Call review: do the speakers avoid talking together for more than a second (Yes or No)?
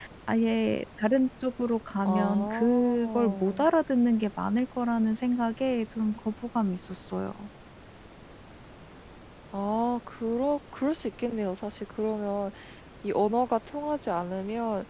No